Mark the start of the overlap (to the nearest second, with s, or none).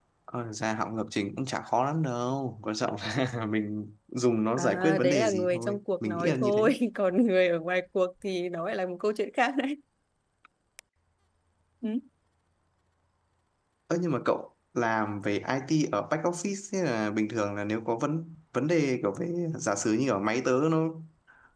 5 s